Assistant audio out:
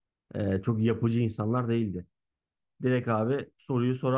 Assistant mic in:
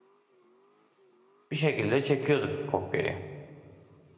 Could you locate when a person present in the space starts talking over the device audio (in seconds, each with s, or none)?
1.5 s